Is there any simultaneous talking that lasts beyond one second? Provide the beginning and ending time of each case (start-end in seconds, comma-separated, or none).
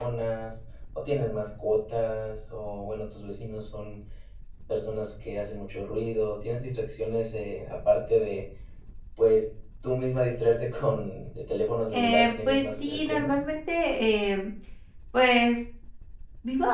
11.9-13.3